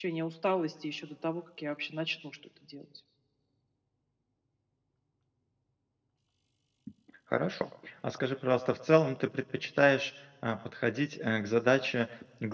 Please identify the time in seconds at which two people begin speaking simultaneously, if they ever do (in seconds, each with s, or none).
none